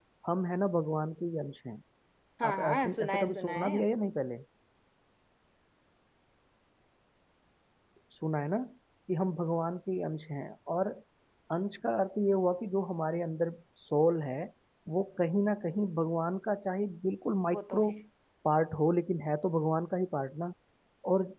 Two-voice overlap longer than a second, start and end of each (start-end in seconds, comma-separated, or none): 2.4-3.8